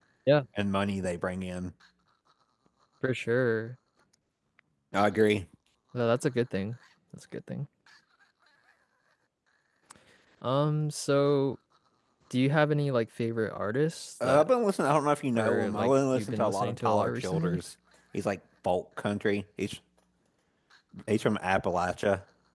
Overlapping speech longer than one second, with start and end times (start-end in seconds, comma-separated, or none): 15.3-17.6